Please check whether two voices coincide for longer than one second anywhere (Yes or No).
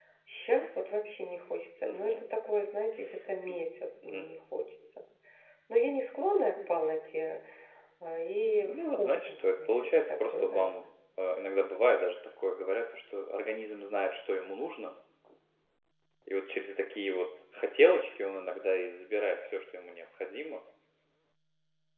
Yes